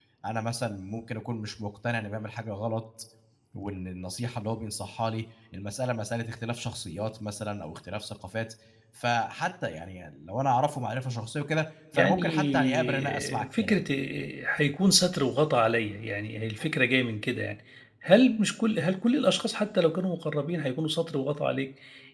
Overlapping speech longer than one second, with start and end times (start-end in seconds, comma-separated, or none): 11.9-13.9